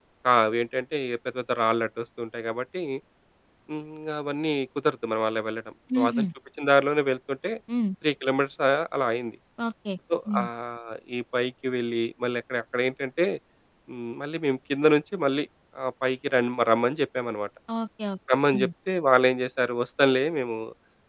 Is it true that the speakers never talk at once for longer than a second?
Yes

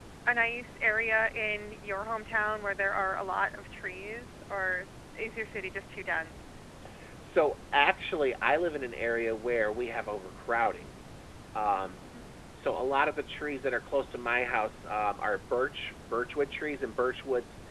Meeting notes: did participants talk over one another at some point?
No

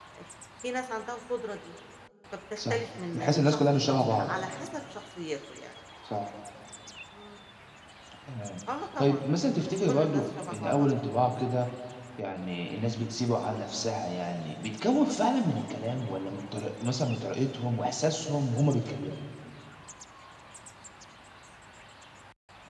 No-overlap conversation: No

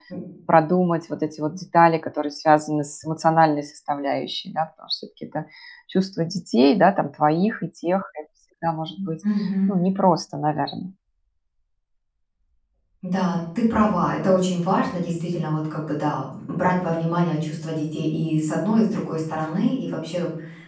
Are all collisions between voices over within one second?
Yes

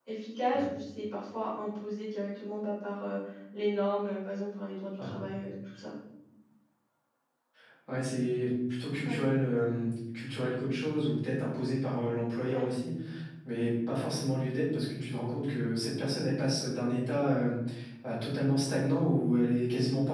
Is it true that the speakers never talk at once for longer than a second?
Yes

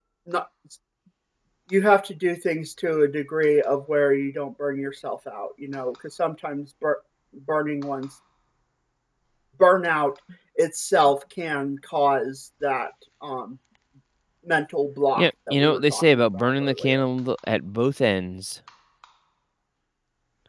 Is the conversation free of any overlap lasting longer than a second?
No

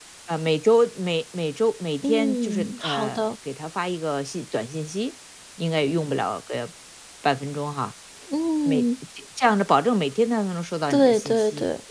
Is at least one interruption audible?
Yes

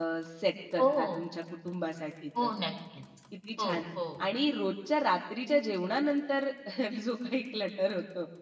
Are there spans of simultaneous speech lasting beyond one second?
No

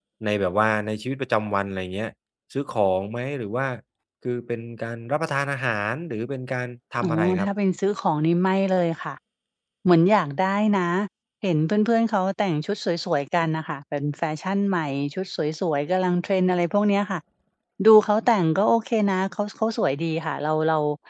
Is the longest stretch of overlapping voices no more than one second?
Yes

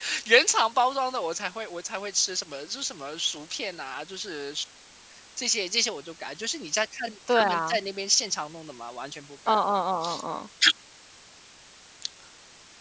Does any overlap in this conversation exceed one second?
No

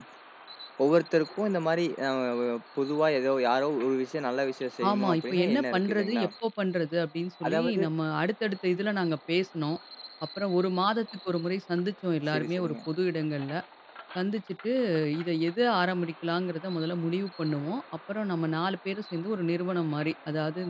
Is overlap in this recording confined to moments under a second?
No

